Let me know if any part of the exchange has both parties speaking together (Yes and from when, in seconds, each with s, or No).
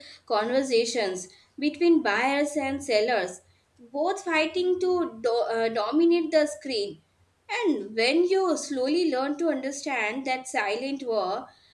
No